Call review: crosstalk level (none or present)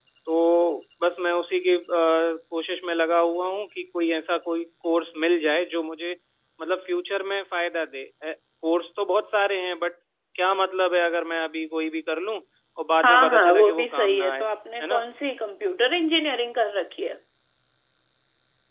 present